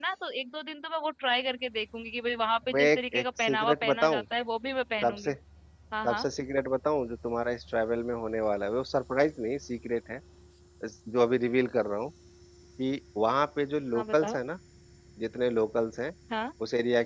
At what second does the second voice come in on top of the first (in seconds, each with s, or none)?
2.7 s